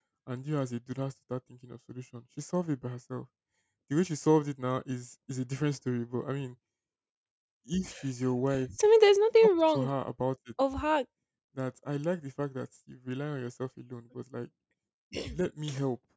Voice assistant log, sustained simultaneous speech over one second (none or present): none